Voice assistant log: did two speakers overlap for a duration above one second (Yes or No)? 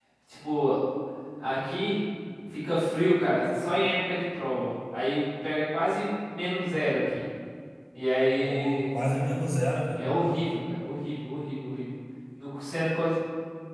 No